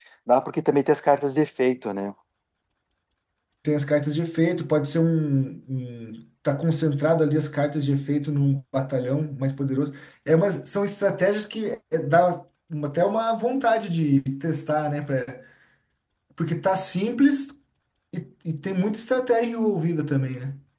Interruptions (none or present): none